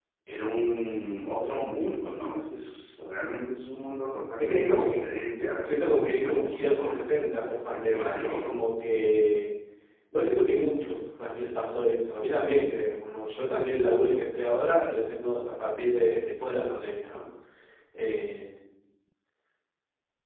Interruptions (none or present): present